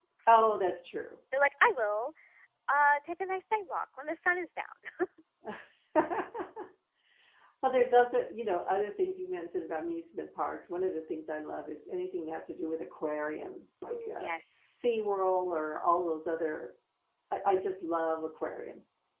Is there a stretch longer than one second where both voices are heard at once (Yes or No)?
No